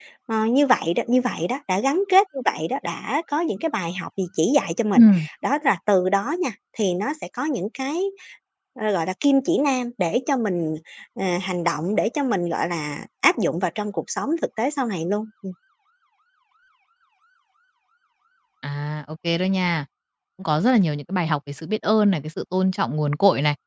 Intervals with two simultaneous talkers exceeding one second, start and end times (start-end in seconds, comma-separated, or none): none